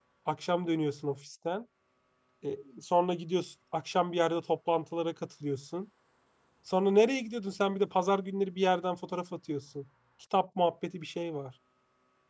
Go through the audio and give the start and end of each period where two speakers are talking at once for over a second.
none

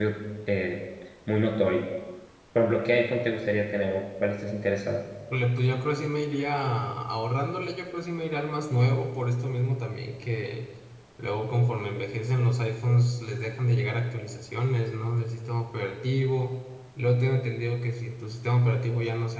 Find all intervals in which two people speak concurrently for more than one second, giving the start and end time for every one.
none

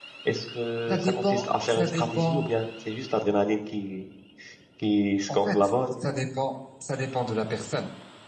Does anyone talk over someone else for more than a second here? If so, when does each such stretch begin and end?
0.9-2.5

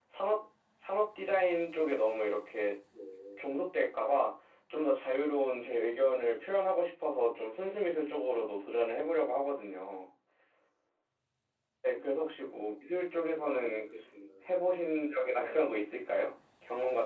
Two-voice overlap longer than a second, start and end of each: none

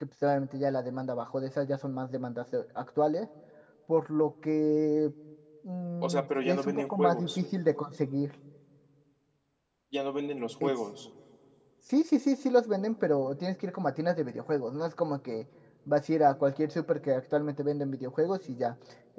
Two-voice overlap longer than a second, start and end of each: 6.0-7.4

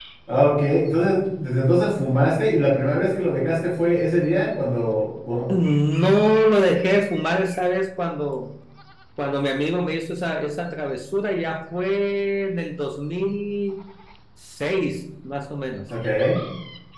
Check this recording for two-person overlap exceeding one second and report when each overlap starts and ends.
none

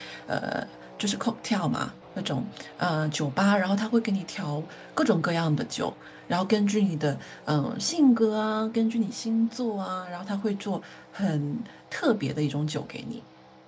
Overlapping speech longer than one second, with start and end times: none

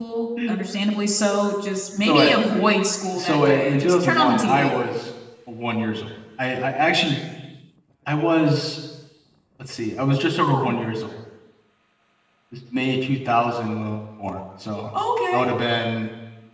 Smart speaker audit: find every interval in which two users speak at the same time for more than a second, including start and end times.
3.1-4.7

